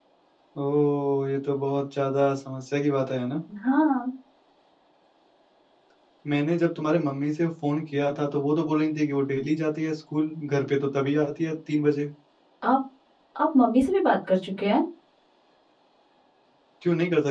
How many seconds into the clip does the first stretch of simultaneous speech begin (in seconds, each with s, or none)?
none